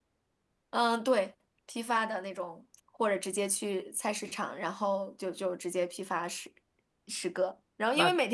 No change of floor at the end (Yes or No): Yes